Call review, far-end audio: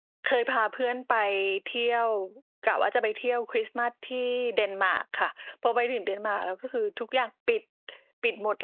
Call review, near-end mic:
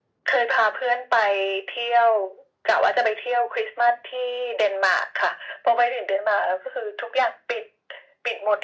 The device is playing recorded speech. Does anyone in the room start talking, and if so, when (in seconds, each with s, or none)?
none